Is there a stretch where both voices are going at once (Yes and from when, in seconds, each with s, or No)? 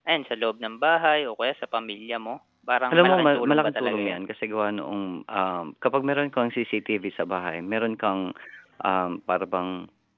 Yes, from 2.9 s